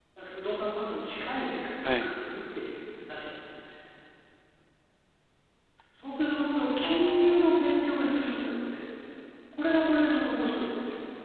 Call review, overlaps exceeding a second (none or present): present